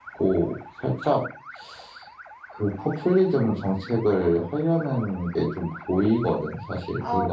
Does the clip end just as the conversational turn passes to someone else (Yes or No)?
Yes